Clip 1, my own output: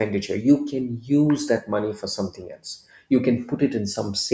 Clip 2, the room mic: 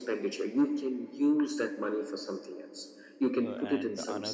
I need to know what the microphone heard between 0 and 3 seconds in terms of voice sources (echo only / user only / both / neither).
echo only